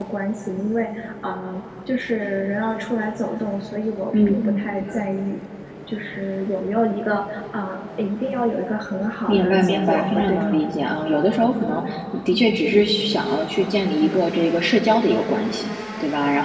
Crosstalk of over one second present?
Yes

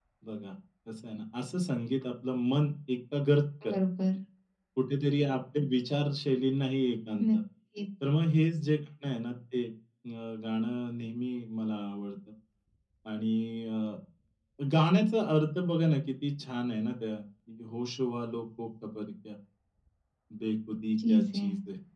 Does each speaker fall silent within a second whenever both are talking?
Yes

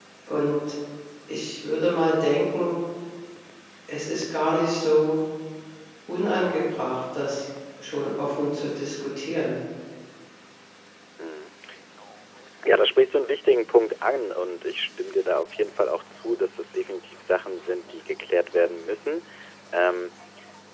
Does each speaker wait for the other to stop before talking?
Yes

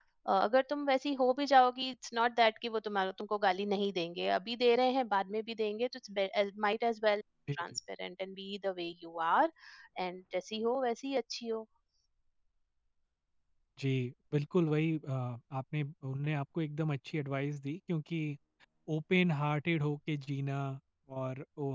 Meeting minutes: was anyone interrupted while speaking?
No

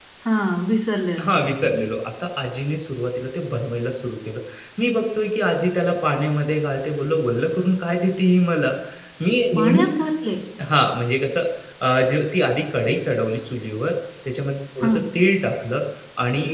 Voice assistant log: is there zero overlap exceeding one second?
Yes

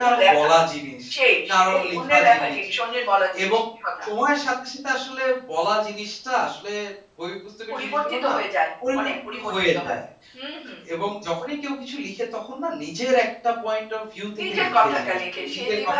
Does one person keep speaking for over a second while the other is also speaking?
Yes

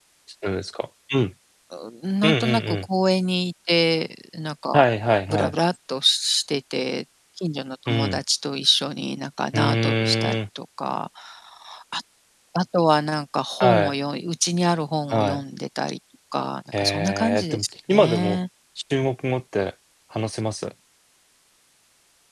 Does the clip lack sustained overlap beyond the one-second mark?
No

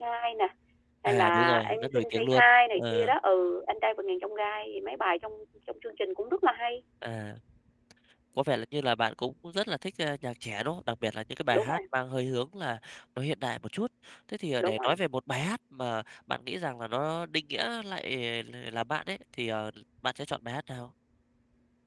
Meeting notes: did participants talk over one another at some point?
Yes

